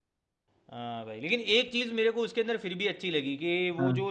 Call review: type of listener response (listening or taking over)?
listening